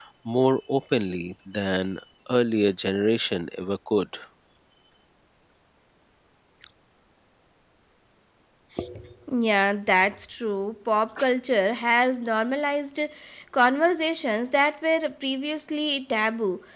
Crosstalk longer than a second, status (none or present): none